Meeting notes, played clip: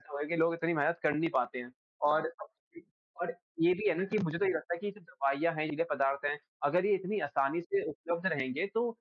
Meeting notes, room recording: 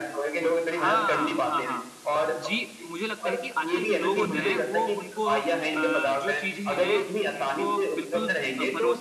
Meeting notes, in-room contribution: present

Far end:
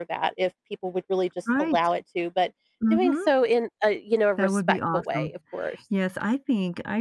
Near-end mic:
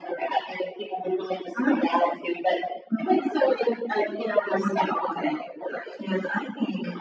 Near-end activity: none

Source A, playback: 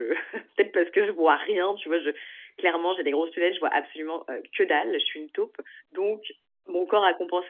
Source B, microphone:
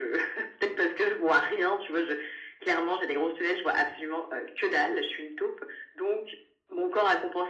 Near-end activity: none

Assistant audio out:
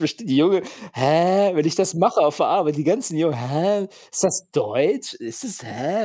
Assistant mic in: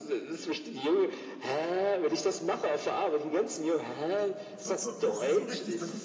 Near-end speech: present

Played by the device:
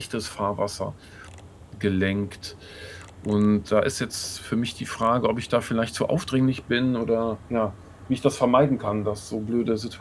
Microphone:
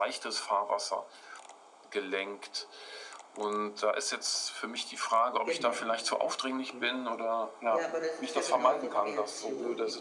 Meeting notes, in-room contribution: present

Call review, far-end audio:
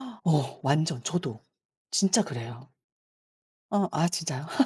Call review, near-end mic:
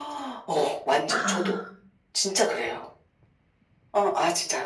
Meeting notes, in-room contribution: present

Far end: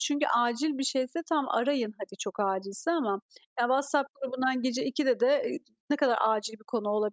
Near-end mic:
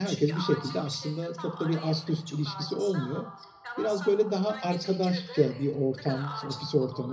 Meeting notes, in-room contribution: present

